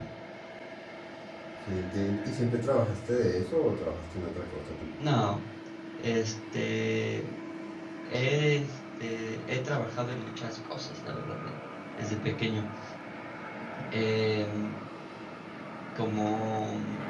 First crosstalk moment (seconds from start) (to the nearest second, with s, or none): none